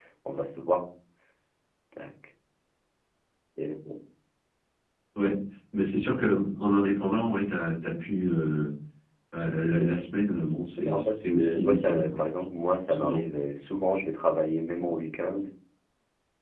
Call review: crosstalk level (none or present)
present